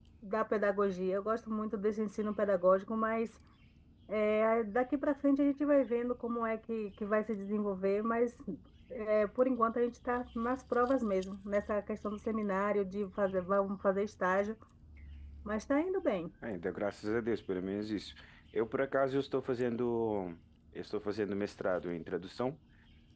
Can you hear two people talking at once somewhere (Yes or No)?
No